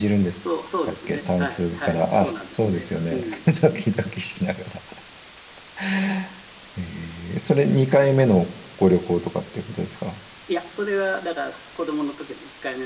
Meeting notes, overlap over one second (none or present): present